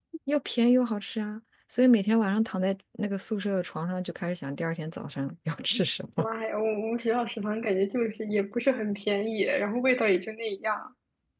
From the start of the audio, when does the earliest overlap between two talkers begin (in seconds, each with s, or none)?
none